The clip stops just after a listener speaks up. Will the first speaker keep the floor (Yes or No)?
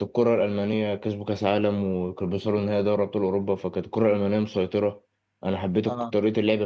Yes